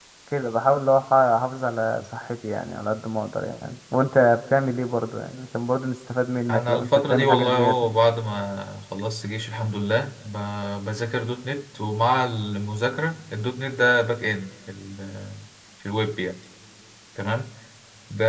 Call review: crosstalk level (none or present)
present